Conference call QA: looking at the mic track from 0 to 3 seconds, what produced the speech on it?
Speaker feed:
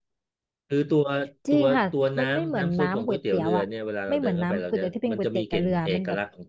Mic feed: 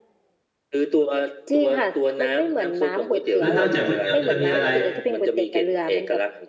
echo only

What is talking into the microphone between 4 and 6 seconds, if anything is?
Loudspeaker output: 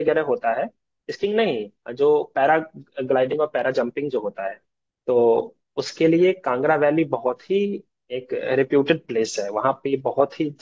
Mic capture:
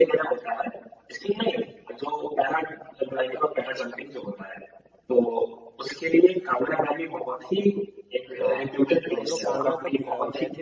echo only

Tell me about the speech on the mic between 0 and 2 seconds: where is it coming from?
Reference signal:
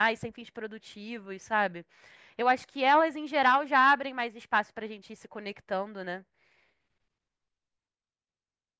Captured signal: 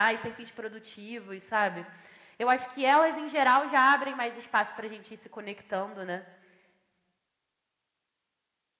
echo only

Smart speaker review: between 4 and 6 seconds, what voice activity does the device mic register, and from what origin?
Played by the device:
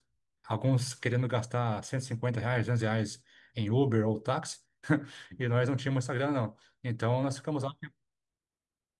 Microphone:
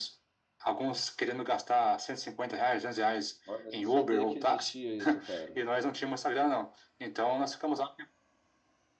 both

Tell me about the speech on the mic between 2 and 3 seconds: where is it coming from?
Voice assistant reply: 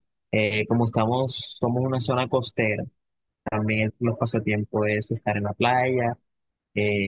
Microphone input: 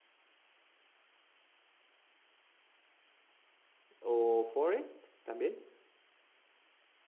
neither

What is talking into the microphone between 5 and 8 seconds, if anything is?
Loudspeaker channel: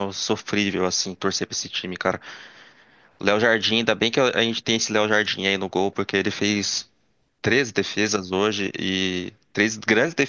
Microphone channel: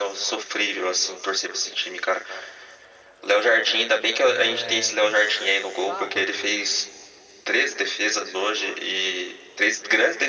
both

